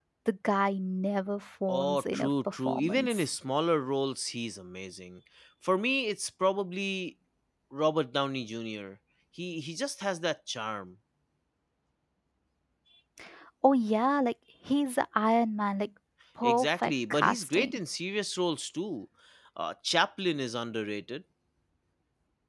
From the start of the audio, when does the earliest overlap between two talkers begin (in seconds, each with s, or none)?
1.7 s